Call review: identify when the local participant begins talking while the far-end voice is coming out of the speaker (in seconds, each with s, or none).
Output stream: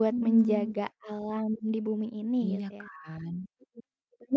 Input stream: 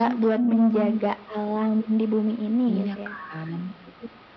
none